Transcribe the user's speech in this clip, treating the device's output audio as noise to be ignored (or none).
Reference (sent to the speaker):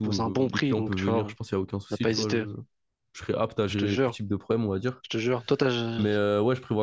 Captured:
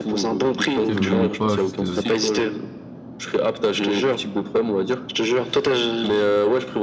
Tu sais, je me limite pas à juste euh,